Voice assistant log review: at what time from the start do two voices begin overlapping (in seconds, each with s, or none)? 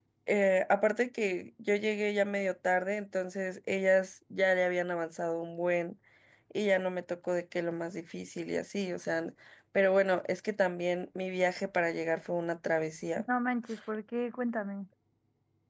none